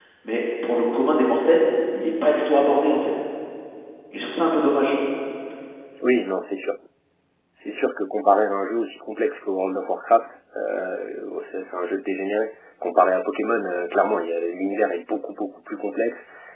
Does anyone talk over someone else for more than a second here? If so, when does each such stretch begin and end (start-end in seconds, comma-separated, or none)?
none